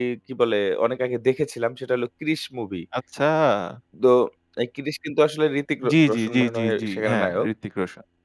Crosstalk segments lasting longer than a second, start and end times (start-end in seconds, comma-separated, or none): 5.9-7.5